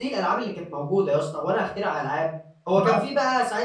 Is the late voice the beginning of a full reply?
No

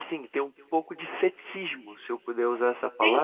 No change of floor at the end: Yes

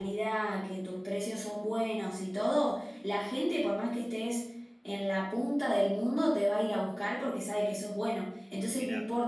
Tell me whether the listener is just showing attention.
Yes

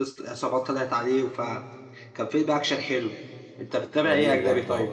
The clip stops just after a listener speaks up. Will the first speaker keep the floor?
No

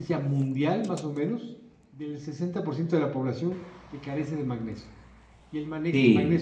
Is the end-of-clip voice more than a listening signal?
No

